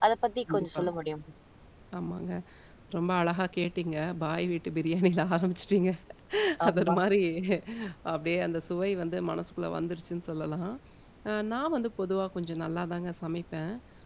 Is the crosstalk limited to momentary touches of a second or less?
Yes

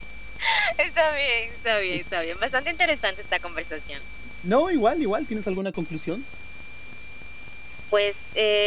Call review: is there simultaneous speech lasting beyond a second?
No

